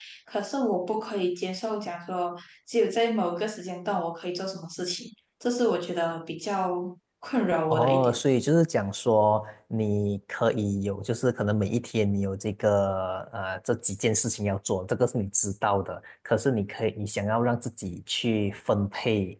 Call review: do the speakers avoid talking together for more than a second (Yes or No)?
Yes